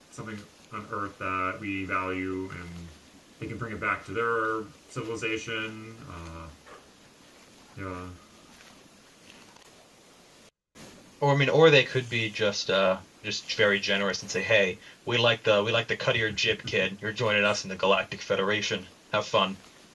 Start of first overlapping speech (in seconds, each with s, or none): none